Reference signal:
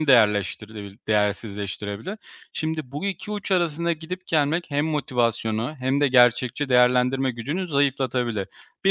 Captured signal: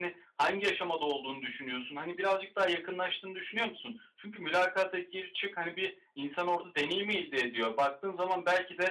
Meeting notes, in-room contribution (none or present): present